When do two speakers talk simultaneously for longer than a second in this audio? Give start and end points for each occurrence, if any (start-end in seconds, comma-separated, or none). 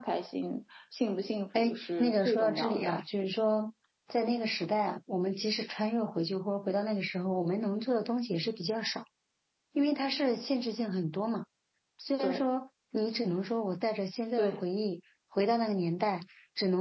1.6-2.9